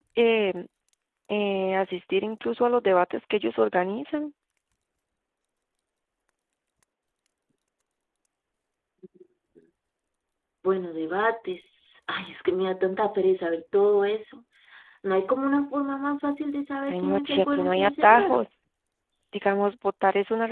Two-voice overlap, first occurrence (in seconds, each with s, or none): 16.9 s